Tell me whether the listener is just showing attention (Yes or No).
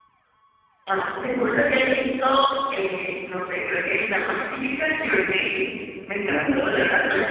Yes